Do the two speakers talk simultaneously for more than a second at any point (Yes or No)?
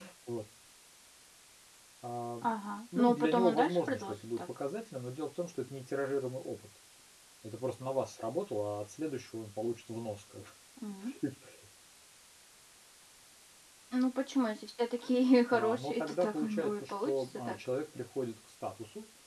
Yes